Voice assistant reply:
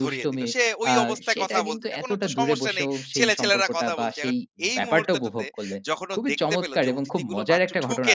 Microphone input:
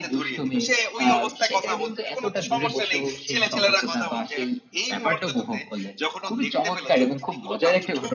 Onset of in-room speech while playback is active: none

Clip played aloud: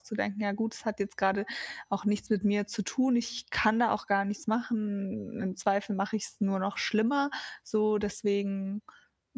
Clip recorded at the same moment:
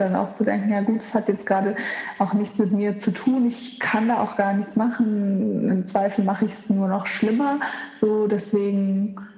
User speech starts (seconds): none

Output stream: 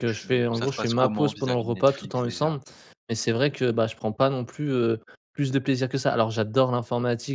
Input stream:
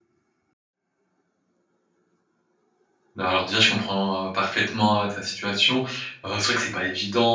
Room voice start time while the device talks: 3.2 s

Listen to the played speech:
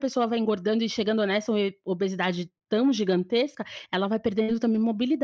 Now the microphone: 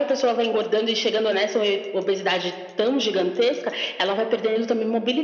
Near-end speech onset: none

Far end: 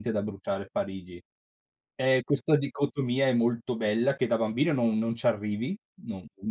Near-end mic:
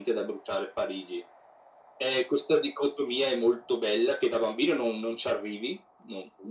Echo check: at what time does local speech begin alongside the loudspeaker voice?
none

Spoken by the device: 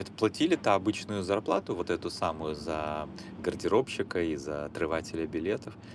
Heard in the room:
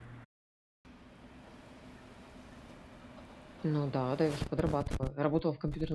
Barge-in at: 3.6 s

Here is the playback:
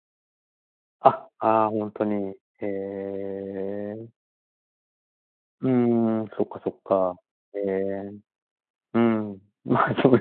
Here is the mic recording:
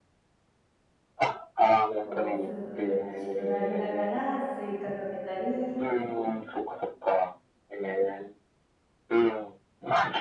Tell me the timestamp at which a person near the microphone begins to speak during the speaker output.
2.0 s

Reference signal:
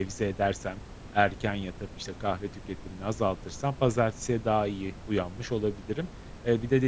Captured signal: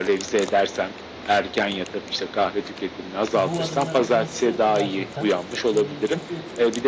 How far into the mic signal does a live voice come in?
3.3 s

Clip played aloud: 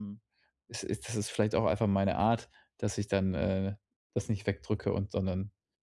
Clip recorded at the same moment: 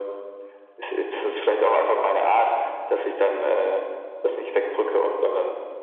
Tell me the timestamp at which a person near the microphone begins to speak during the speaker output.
none

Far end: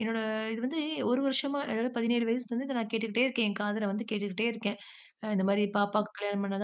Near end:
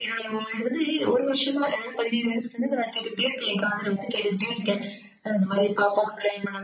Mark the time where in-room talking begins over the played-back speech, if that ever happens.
none

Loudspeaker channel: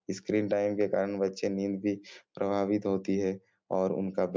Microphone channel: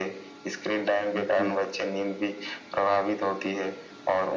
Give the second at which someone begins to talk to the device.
1.1 s

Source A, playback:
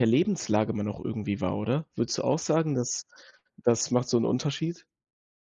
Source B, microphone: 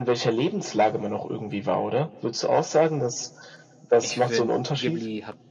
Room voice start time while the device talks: 4.0 s

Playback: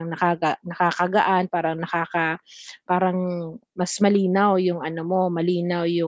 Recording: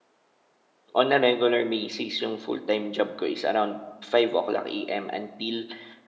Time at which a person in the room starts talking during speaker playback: 1.0 s

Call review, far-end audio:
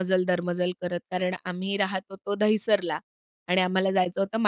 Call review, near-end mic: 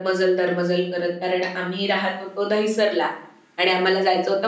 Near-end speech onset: none

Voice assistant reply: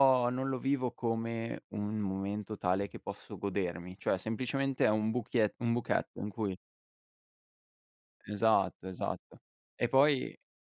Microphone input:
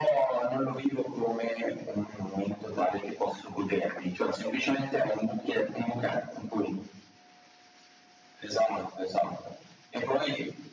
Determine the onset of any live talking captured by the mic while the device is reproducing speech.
none

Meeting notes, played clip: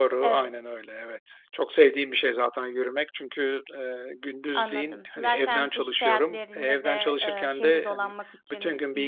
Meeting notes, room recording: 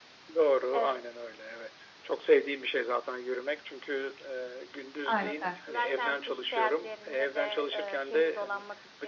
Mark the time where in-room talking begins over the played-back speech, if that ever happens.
5.1 s

